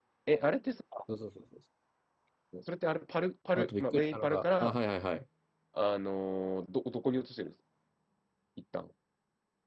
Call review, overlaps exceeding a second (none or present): present